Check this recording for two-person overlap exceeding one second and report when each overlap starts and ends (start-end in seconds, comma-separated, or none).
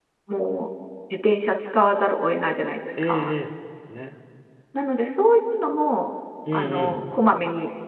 none